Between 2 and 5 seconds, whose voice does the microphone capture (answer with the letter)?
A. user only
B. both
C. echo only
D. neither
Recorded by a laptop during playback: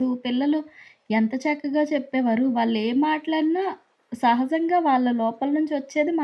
A